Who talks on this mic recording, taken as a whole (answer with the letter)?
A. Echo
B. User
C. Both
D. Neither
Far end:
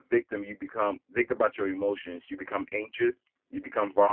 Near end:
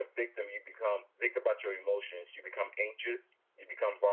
A